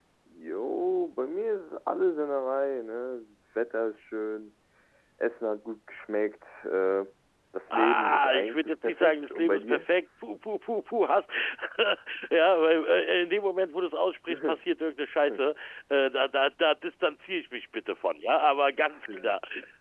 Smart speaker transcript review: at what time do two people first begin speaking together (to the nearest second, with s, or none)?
8 s